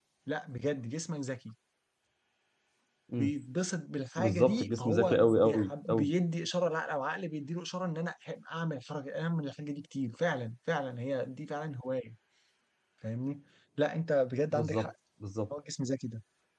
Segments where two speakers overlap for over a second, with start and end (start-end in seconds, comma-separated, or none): 4.2-6.1